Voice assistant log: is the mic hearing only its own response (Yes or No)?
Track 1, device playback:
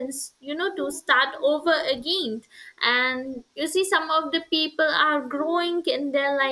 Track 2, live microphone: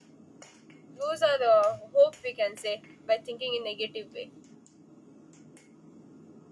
No